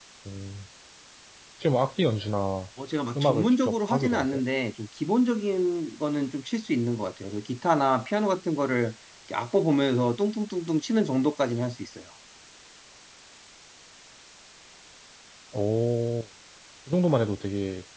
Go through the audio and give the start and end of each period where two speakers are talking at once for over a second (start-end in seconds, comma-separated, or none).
3.2-4.4